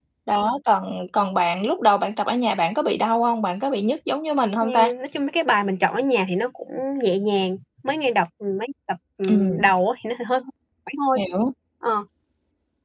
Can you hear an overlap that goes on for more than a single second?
No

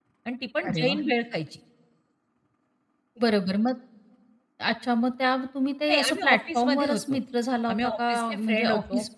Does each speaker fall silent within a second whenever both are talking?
No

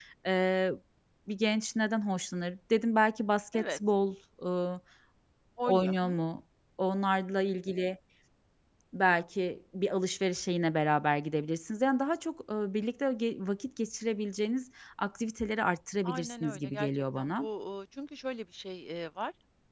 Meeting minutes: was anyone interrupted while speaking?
Yes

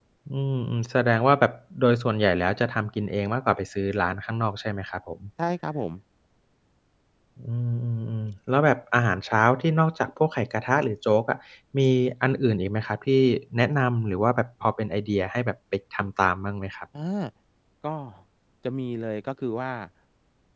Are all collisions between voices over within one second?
Yes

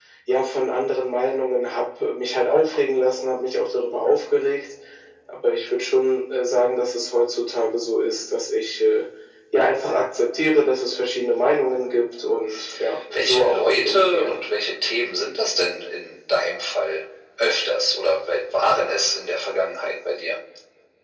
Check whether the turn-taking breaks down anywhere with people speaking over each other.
Yes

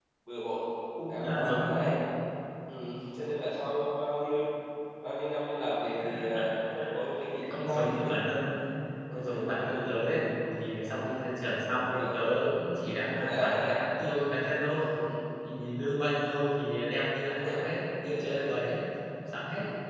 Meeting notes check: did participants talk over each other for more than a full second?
Yes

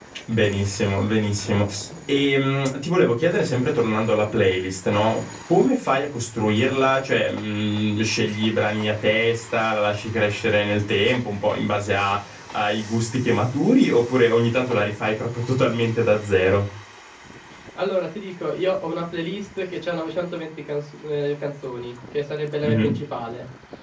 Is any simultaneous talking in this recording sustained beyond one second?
No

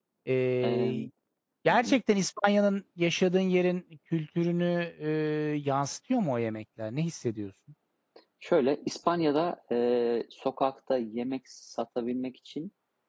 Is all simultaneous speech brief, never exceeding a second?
Yes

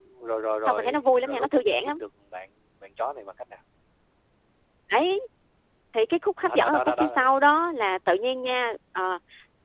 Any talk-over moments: Yes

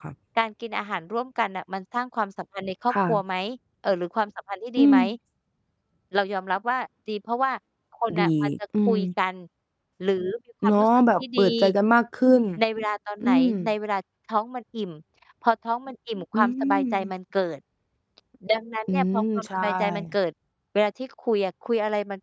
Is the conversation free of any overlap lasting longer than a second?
No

